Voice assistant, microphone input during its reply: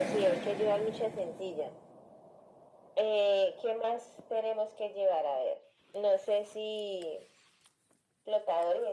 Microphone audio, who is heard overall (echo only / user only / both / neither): echo only